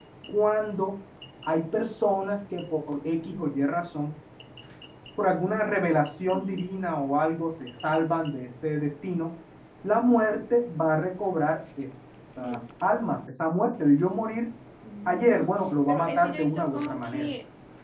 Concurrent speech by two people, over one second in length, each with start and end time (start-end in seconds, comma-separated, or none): 15.9-17.3